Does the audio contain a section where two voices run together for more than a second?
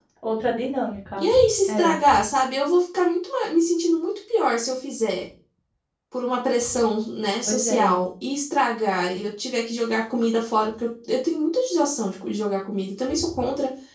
No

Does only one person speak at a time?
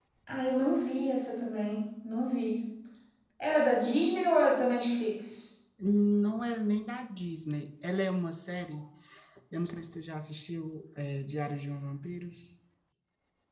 Yes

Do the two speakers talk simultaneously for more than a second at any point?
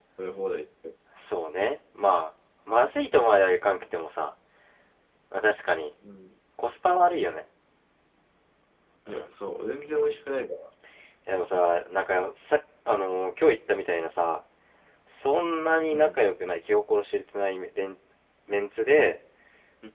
No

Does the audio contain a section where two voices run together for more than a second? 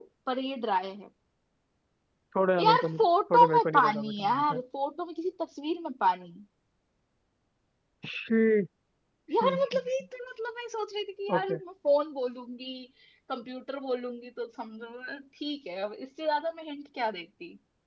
Yes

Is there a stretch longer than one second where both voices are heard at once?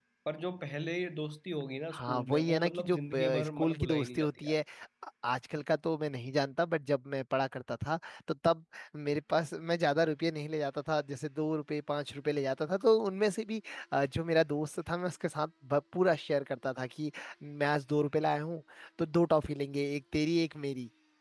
Yes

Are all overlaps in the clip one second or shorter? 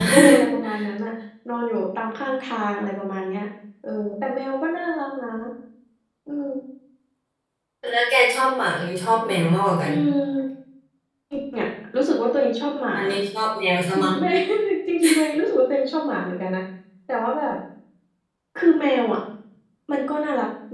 Yes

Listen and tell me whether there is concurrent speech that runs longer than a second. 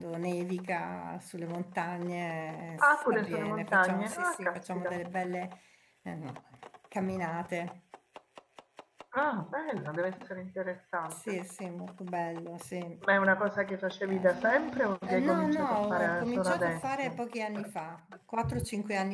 Yes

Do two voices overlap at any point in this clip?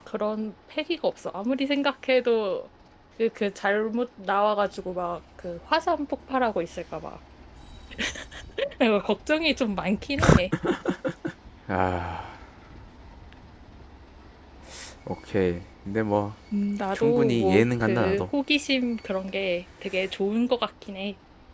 Yes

